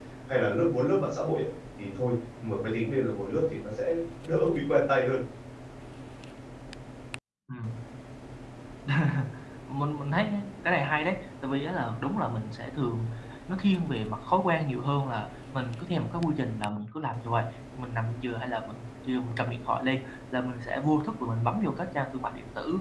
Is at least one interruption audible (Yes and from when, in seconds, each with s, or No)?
No